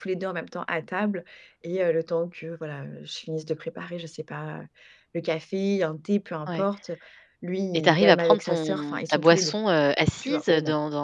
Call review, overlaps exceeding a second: present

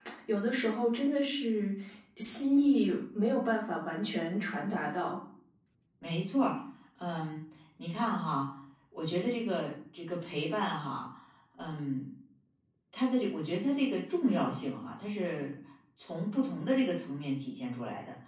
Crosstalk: none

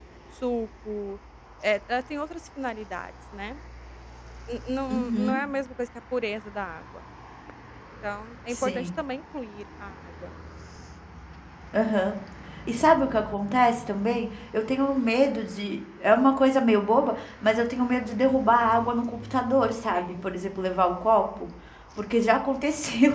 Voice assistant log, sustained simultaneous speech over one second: none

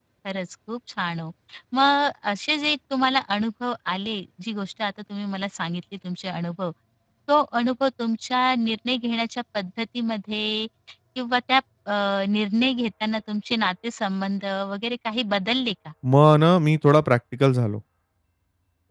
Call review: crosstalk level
none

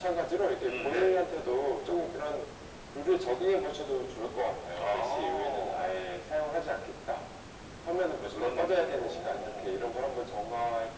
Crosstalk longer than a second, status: present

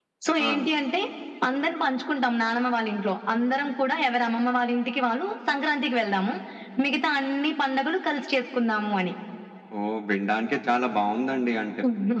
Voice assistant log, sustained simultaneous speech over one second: none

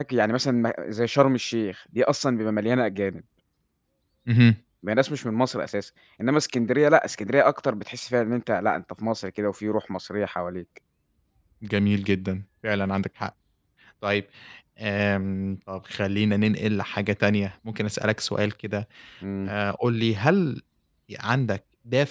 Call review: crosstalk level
none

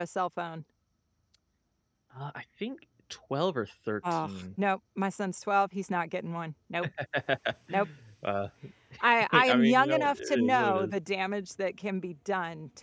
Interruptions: present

